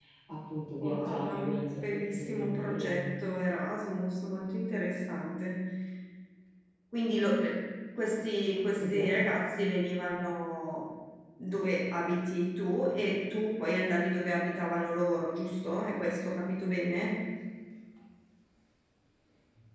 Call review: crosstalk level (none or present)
present